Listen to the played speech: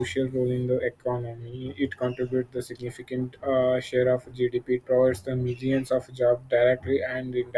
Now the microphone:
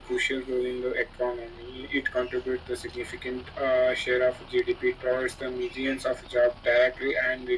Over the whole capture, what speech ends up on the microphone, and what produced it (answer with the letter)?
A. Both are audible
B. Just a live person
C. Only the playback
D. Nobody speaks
C